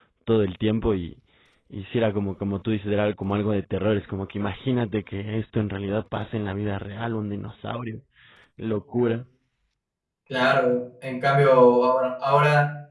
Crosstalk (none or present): none